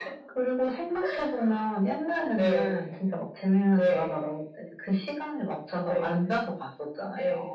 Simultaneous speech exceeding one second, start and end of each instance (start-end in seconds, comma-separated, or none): none